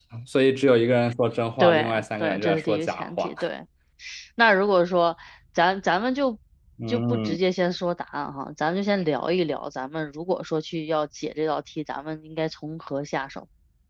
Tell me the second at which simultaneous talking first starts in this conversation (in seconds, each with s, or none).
1.6 s